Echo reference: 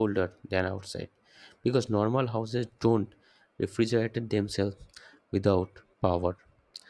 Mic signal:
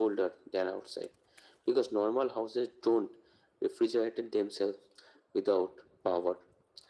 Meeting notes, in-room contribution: none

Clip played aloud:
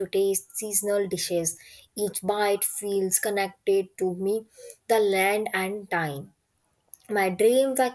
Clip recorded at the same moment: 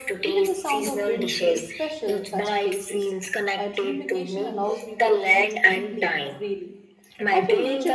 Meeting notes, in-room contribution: present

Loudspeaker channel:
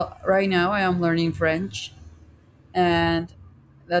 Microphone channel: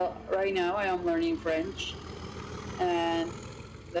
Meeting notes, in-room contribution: none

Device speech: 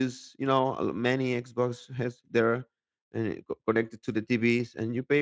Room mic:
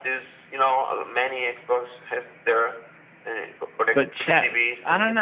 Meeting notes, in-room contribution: present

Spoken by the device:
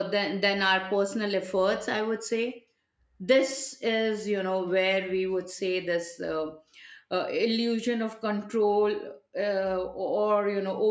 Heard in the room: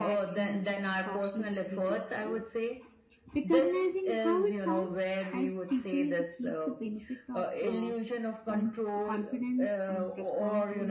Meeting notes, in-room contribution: present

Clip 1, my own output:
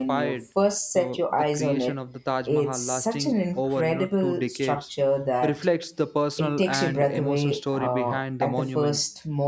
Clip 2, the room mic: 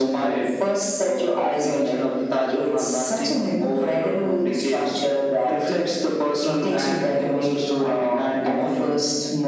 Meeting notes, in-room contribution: none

